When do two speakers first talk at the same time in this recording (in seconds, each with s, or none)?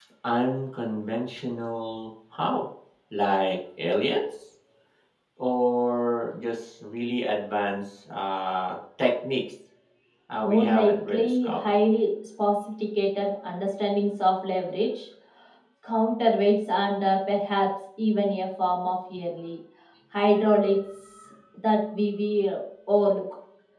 10.4 s